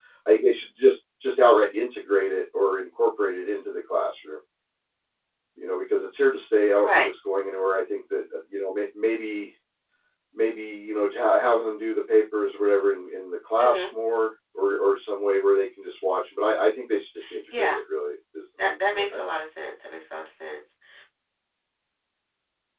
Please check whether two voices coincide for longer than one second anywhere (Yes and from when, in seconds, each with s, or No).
No